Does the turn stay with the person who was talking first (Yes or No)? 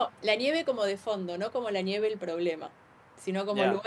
Yes